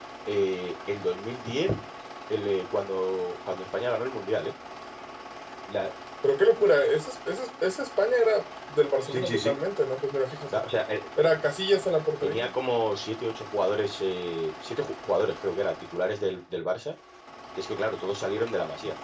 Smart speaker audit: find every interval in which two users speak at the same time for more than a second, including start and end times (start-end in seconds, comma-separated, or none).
none